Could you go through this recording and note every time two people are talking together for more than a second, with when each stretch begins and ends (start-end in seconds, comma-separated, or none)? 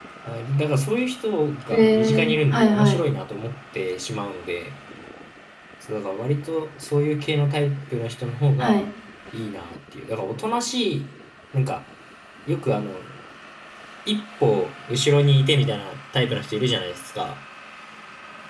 1.7-3.0